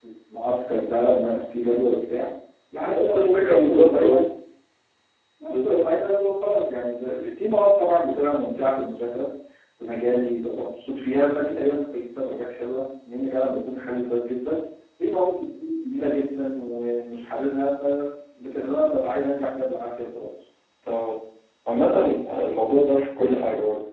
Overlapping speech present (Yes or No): Yes